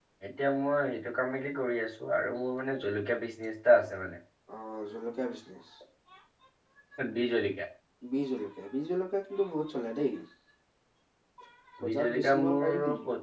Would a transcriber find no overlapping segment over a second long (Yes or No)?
No